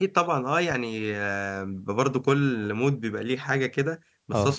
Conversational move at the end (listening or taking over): listening